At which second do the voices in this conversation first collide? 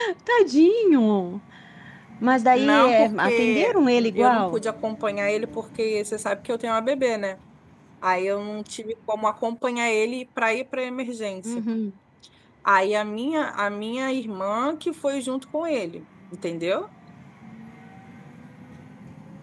3 s

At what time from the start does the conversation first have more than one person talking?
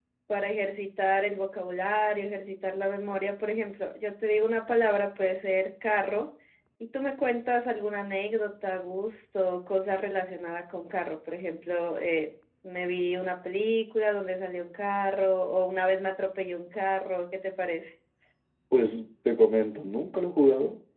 none

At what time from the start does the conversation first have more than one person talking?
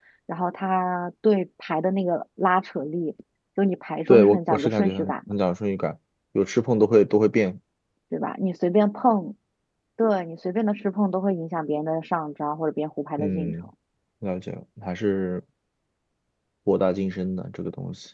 4 s

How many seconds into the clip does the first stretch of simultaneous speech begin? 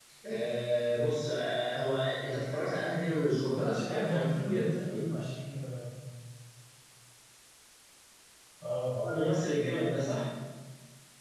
3 s

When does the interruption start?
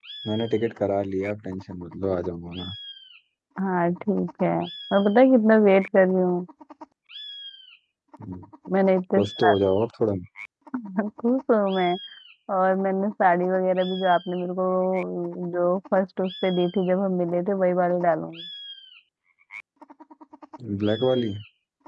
none

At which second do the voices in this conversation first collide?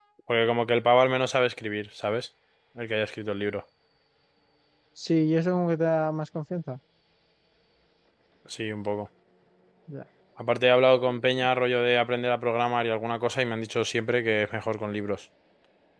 none

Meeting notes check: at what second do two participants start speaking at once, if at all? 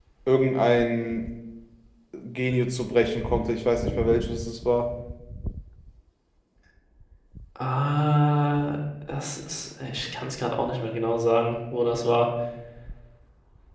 none

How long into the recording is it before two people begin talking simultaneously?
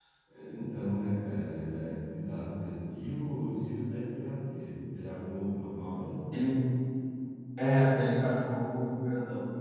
none

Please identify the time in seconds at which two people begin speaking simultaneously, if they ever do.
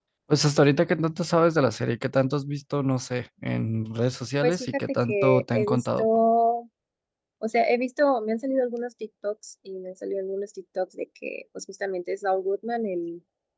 4 s

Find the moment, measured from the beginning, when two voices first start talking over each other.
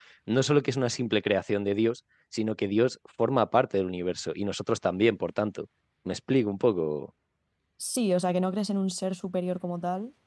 none

